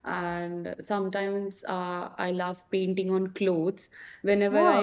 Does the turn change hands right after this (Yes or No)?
No